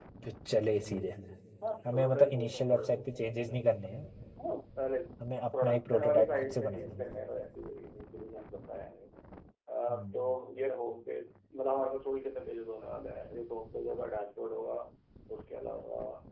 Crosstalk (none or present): present